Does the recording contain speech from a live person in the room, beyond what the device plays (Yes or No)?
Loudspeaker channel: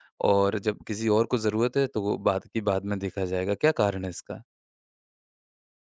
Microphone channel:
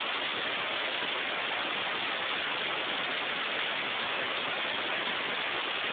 No